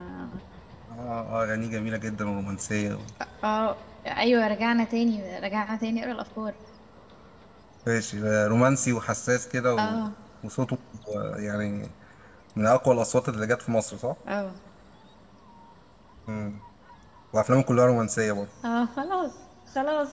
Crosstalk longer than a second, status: none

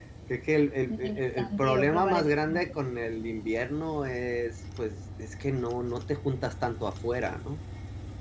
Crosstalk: present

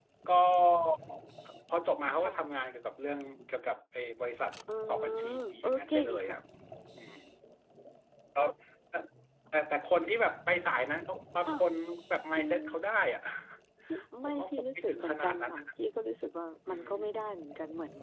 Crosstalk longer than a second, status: present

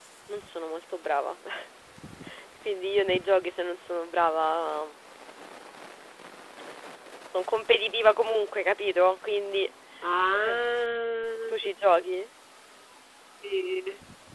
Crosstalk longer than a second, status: none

